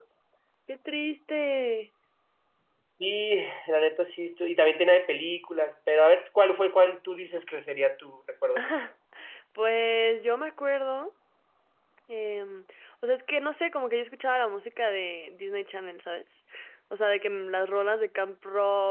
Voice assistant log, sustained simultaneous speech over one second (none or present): none